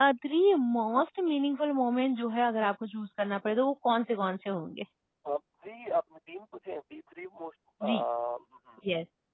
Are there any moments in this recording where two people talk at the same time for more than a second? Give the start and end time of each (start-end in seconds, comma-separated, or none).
none